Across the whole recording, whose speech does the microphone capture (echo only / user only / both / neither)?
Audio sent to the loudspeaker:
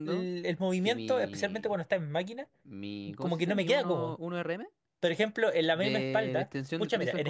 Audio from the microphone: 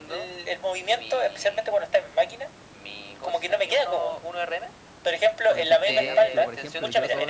both